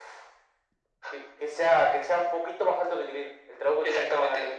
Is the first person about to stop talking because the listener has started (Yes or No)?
Yes